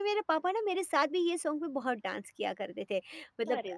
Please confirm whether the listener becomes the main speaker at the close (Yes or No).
No